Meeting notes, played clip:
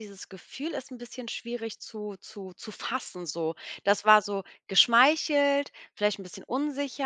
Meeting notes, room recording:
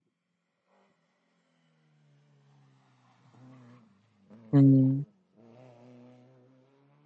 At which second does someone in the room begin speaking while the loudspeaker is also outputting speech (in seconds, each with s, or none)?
4.5 s